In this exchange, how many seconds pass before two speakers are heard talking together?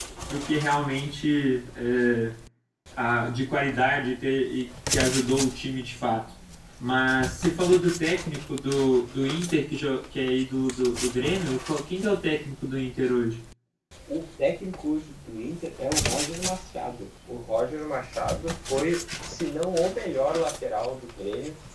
none

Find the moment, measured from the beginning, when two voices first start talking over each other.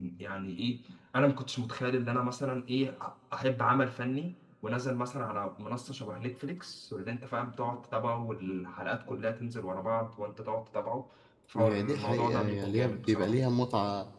11.6 s

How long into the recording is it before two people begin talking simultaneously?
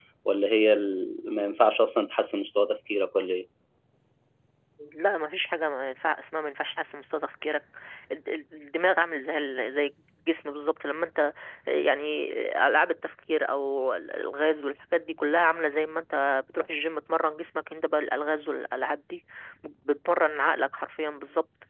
none

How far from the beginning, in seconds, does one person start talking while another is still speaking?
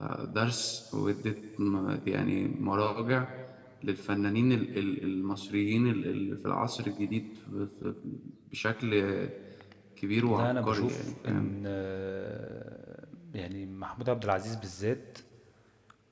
10.3 s

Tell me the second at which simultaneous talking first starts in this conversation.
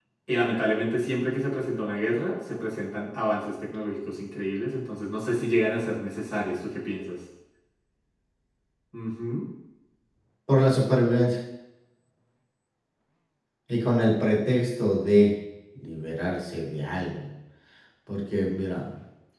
none

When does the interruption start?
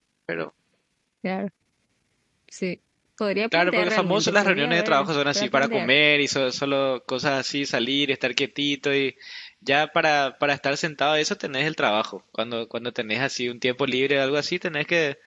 3.5 s

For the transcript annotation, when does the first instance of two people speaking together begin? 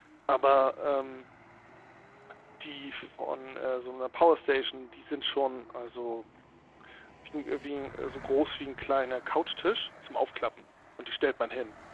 none

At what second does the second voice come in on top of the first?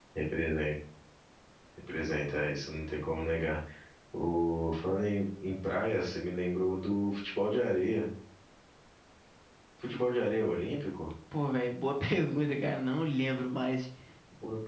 none

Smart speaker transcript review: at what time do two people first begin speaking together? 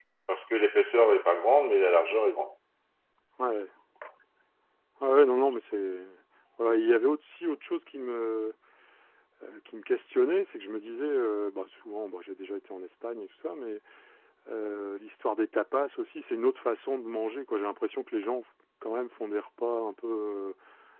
none

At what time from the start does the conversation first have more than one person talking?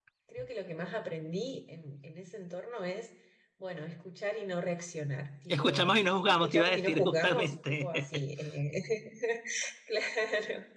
5.5 s

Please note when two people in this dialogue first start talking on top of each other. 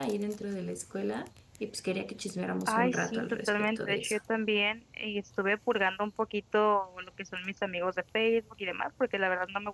2.6 s

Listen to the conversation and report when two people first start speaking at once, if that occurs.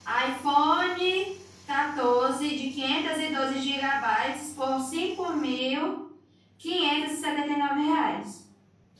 none

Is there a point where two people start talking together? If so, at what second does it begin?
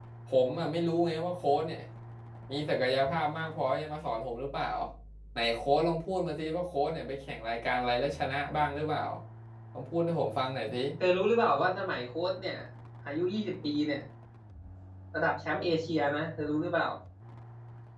none

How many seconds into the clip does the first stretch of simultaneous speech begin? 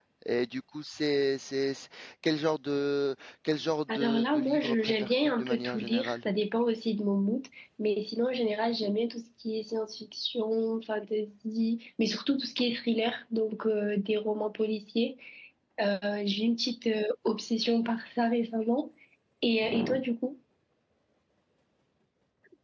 3.9 s

